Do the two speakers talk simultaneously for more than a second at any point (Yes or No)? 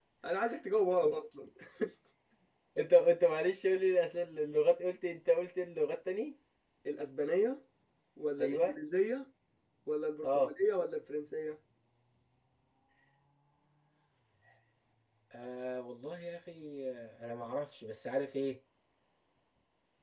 No